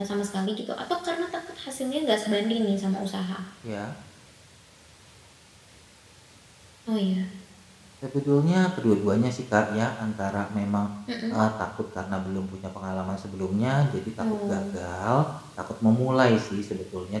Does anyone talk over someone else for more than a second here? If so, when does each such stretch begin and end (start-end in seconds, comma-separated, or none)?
none